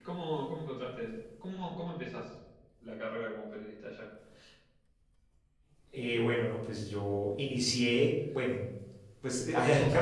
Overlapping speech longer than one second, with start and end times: none

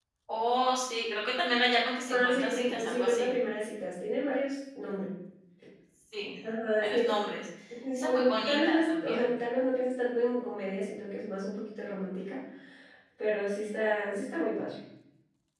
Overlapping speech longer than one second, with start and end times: 2.1-3.4, 7.9-9.3

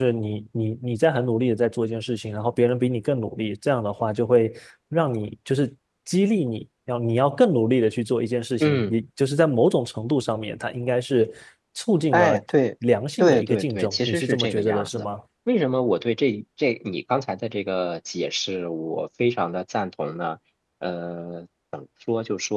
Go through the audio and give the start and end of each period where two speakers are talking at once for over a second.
13.2-15.0

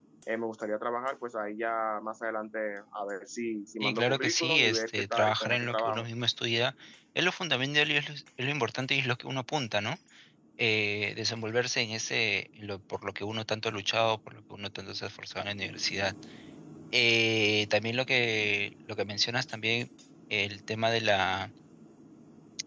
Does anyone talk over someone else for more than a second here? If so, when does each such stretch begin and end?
3.8-6.0

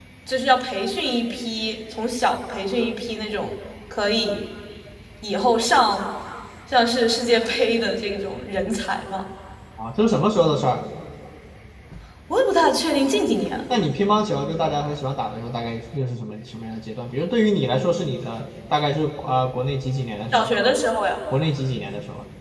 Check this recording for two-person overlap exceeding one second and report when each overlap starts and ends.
none

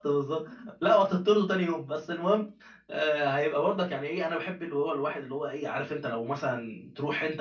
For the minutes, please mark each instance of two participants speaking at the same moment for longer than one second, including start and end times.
none

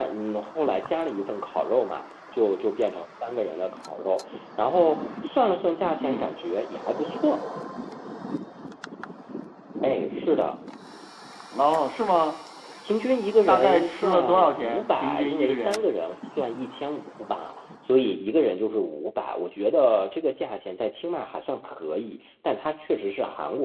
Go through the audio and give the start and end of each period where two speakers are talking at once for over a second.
13.5-15.8

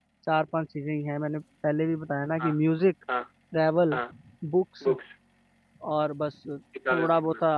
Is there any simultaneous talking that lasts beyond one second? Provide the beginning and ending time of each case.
none

